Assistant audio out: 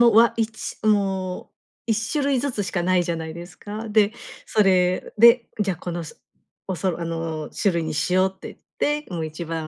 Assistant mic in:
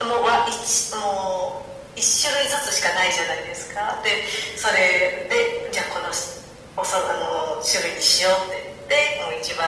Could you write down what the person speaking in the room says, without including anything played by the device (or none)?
none